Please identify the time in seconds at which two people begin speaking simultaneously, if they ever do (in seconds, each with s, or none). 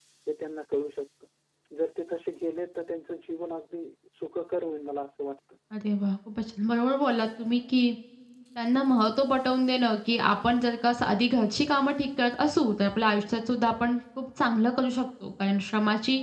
none